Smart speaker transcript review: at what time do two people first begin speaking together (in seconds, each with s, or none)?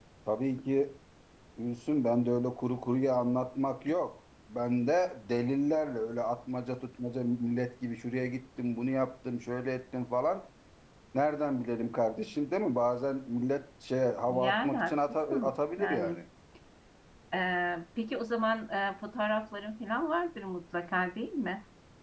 14.3 s